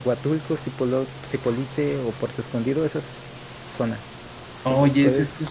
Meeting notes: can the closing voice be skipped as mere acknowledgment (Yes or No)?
No